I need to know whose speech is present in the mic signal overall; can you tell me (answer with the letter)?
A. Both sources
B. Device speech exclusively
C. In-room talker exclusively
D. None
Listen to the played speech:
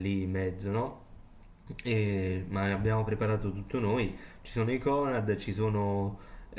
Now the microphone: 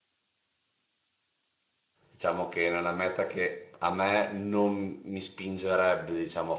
C